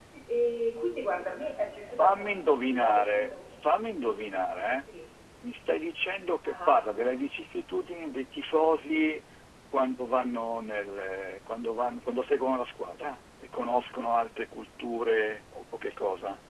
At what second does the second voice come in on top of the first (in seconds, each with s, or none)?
1.9 s